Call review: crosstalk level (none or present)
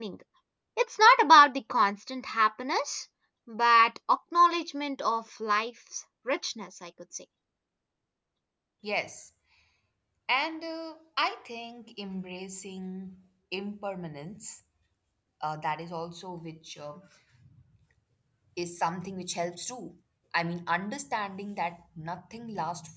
none